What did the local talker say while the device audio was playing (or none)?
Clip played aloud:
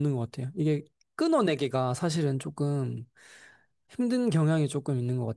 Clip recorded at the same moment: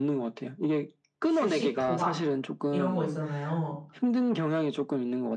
주식, 도박 이런 거 있잖아요.